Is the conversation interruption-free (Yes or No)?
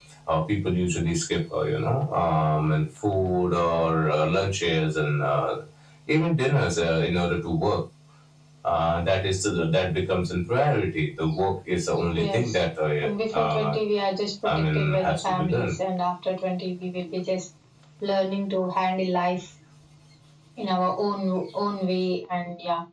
No